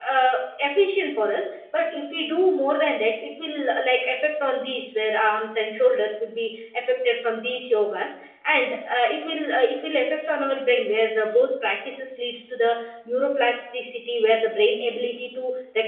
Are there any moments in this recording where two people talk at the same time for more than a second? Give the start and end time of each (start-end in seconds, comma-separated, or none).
none